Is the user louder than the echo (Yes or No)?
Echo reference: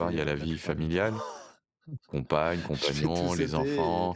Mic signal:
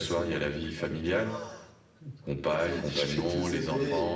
No